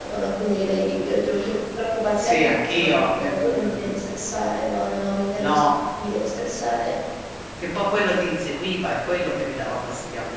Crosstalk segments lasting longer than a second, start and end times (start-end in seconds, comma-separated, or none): 2.2-4.0